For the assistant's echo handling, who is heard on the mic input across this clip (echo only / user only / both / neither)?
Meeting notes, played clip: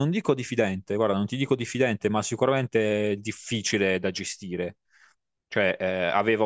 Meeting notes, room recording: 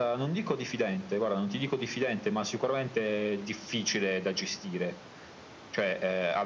echo only